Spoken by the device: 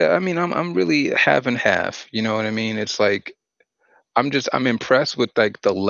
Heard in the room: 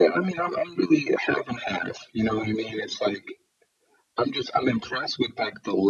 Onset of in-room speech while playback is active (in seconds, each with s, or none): none